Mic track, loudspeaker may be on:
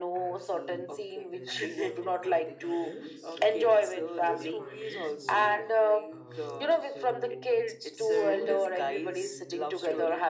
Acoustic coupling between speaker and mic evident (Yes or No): Yes